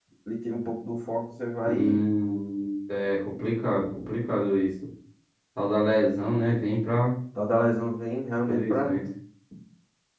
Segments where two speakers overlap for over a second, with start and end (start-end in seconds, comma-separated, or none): none